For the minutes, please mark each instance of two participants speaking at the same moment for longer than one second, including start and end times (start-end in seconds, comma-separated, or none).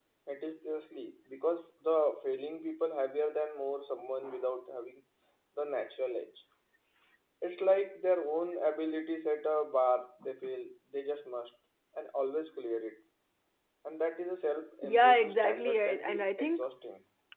14.8-16.6